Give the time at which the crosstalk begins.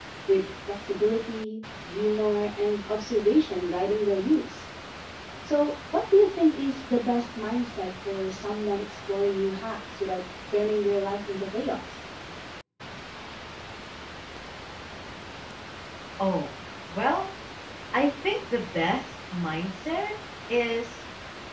none

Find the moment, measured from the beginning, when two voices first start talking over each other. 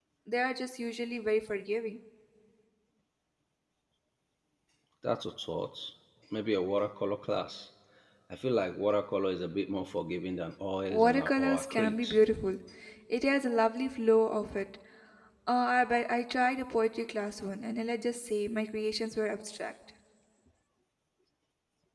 11 s

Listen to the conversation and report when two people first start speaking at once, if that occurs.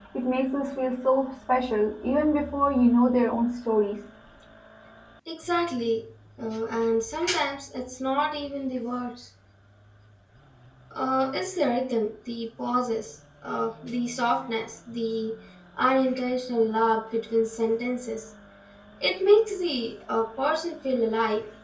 none

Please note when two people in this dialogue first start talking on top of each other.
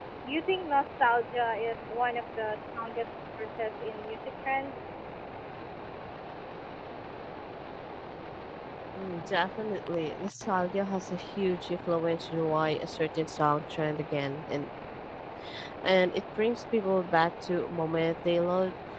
none

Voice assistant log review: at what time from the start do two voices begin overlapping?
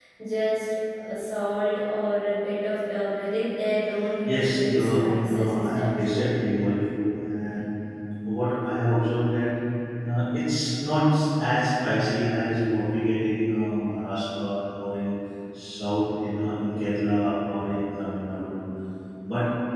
4 s

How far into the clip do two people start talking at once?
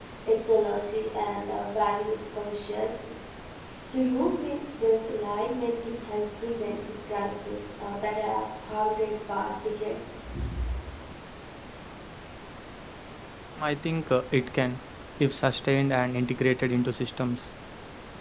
none

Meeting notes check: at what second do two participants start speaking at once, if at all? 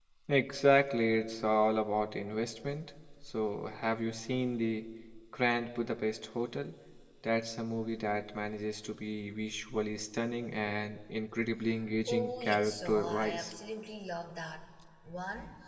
12 s

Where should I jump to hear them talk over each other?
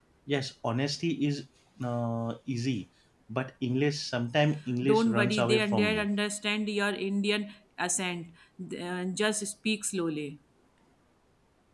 5 s

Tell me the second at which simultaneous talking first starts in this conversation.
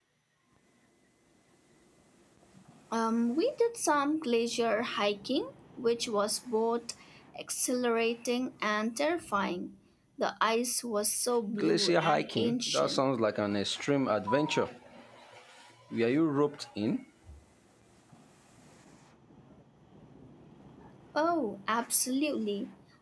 12 s

